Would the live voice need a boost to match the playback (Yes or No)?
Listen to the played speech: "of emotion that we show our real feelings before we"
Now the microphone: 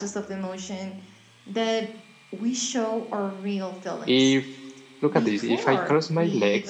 No